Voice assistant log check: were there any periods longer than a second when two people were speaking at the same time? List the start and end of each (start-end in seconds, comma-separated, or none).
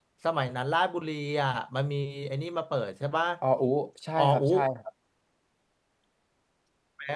none